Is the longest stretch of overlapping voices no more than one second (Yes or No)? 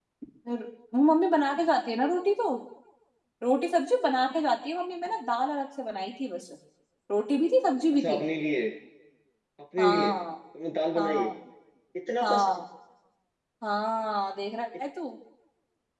Yes